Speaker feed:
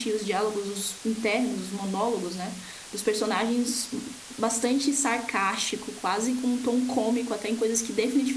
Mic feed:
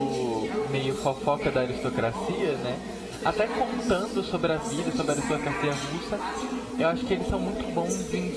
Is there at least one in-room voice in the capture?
Yes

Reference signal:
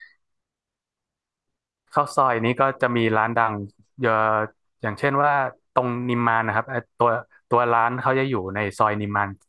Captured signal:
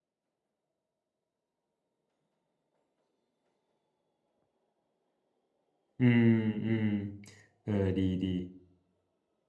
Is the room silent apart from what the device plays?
No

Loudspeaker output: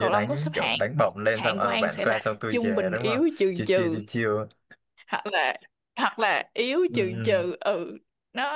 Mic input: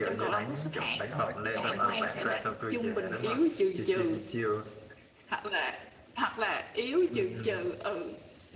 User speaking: Yes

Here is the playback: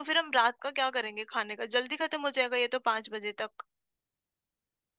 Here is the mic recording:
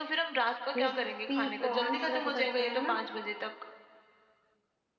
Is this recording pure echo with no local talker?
No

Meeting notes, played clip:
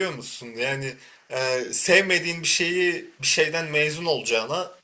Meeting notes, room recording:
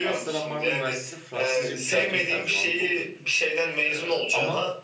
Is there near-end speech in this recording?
Yes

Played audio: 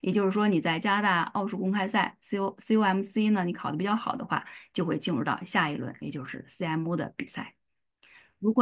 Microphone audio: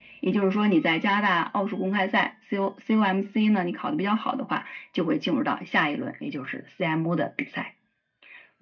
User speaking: No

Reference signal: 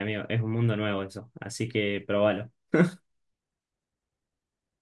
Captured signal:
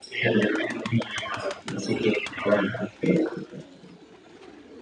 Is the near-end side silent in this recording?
Yes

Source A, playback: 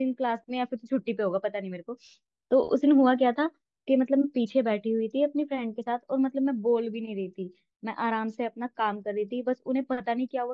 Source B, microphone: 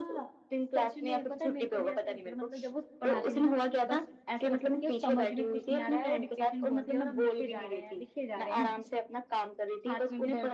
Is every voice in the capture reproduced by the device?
No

